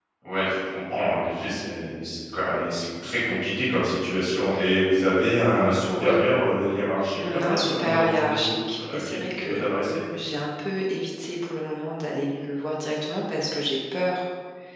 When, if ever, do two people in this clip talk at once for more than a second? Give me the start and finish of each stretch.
7.3-9.6

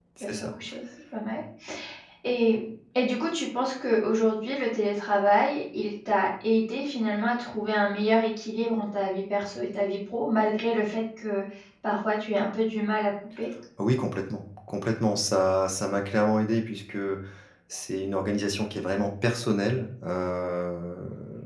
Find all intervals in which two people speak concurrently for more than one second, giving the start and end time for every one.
none

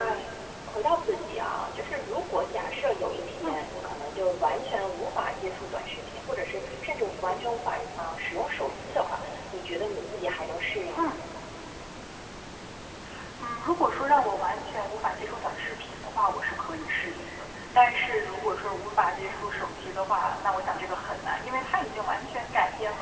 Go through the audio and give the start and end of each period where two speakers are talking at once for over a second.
none

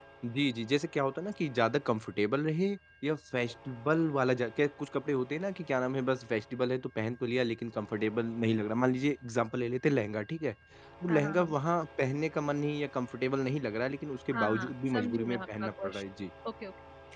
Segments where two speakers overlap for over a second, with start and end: 14.3-16.0

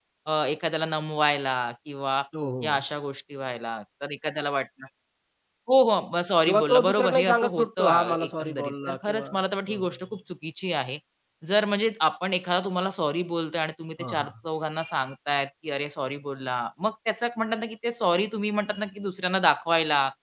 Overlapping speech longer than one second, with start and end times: 6.5-9.4

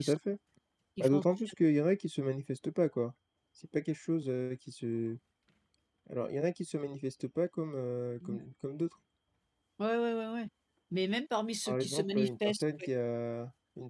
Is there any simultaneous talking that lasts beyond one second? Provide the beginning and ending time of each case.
11.7-12.9

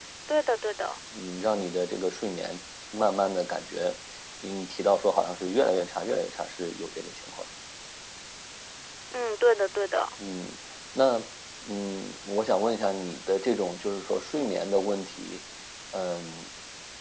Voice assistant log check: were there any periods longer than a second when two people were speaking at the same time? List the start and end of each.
none

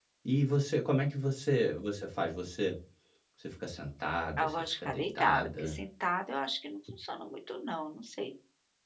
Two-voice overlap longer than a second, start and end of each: 4.4-5.8

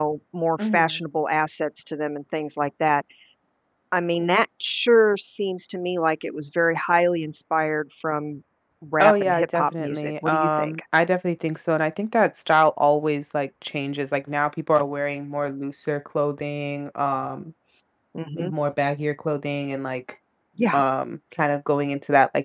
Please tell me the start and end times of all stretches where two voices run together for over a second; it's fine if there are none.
9.0-10.8

